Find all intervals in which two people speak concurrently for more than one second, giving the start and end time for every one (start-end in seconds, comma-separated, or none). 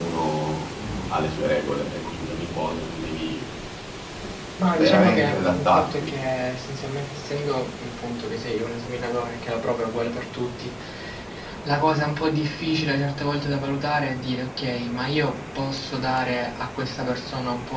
4.8-6.1